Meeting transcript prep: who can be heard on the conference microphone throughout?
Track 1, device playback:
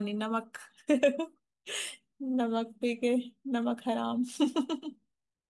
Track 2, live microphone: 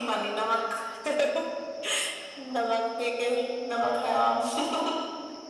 echo only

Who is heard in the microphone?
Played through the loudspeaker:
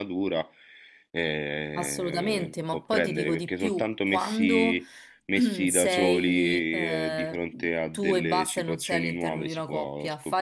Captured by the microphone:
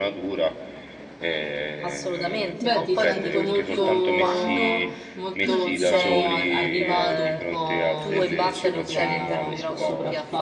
both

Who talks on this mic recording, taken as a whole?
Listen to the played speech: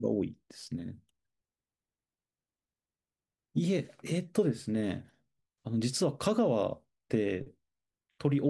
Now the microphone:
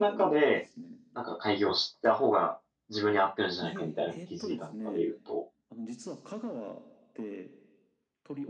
both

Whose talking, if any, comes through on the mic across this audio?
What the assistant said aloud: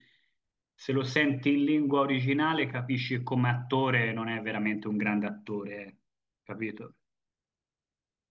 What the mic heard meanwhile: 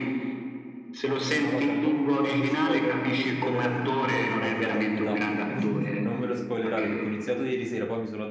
both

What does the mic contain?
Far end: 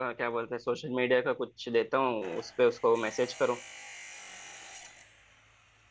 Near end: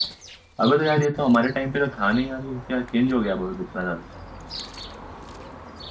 user only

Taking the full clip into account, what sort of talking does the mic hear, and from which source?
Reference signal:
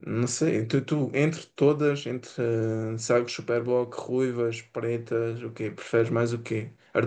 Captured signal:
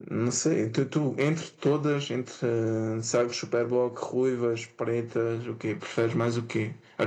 echo only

